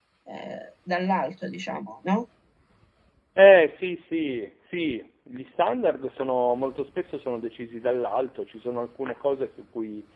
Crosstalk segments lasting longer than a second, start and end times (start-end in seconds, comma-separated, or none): none